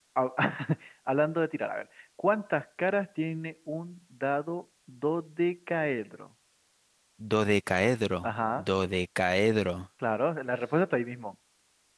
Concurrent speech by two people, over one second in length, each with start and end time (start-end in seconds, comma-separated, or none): none